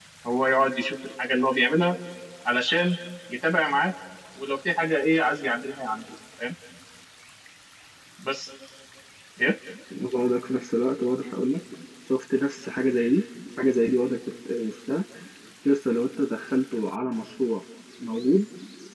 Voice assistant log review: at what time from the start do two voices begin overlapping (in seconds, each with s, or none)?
none